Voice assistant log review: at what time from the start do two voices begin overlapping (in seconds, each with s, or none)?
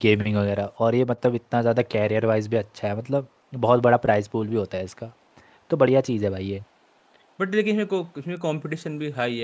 none